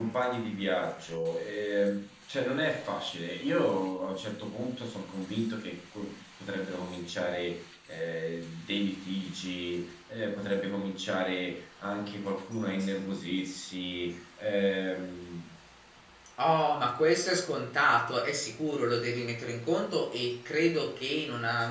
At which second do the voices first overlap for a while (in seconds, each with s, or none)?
none